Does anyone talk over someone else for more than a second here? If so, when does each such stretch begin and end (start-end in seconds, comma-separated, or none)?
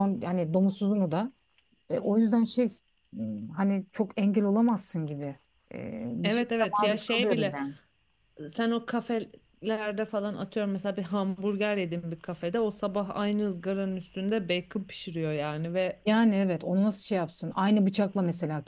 6.2-7.5